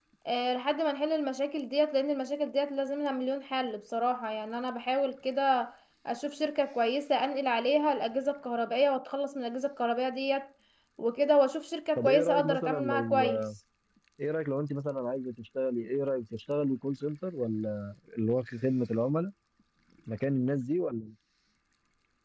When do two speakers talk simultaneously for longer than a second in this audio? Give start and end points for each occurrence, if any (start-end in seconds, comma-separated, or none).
11.9-13.3